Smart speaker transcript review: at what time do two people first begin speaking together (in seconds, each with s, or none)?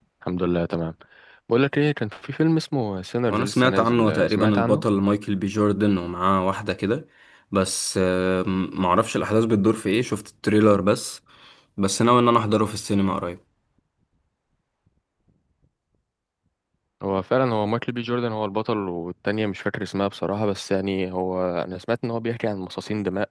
3.3 s